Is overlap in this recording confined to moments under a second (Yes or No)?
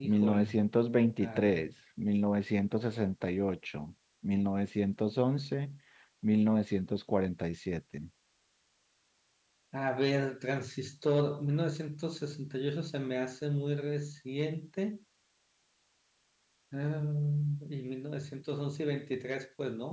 Yes